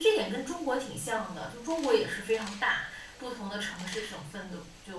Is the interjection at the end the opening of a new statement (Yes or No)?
No